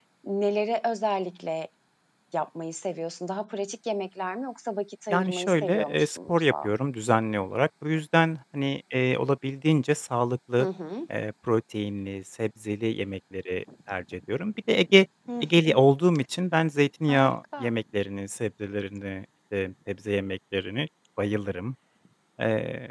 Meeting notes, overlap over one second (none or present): present